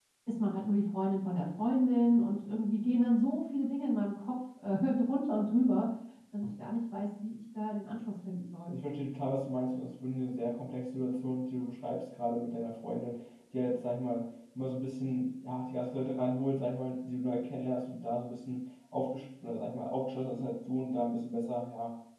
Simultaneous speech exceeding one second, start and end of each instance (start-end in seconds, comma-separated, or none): none